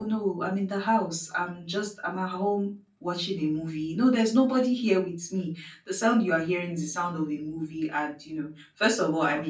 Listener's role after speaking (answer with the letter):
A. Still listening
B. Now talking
A